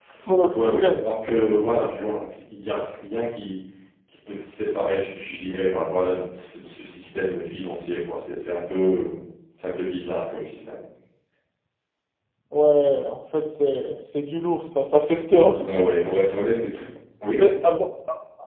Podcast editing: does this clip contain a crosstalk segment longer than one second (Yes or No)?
No